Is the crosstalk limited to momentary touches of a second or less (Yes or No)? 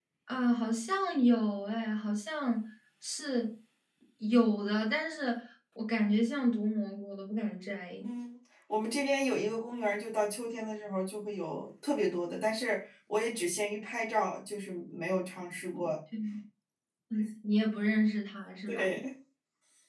Yes